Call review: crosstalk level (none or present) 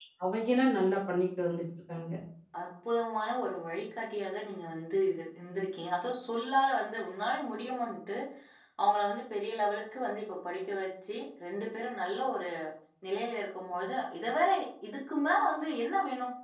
none